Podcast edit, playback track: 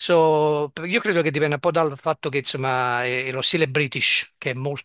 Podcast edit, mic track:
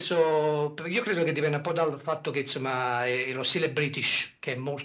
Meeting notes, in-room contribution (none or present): none